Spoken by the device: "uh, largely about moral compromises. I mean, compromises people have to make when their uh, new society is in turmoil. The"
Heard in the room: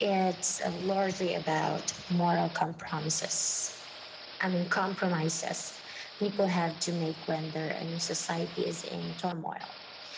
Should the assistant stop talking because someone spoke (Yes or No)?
No